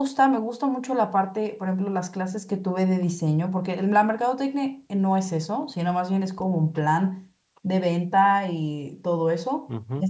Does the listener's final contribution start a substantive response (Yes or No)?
Yes